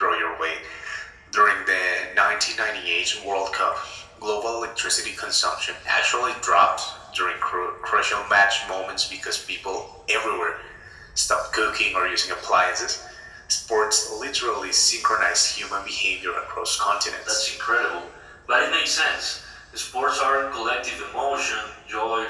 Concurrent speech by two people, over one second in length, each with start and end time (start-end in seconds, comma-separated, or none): none